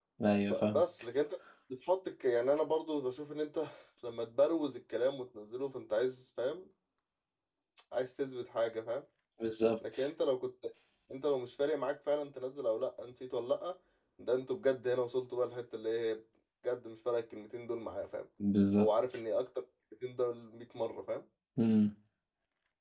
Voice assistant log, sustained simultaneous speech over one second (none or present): none